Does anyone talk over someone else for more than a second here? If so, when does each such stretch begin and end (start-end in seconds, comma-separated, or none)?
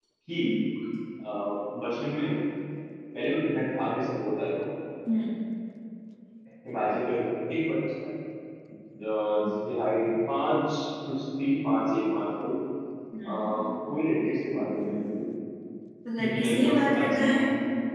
16.2-17.4